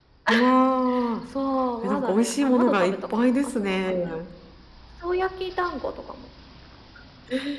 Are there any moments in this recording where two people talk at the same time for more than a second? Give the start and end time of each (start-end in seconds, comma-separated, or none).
1.8-3.9